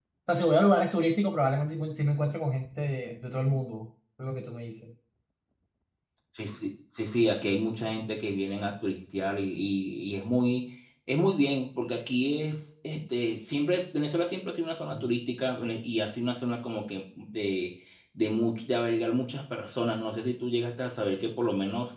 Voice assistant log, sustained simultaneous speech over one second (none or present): none